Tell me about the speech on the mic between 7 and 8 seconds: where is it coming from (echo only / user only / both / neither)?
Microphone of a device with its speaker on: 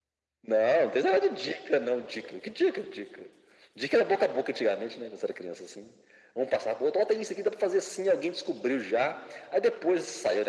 echo only